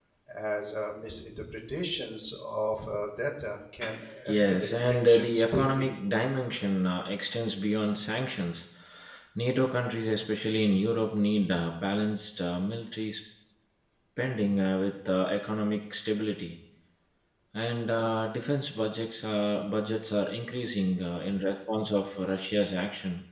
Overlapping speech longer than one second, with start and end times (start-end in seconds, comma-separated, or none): 4.3-5.9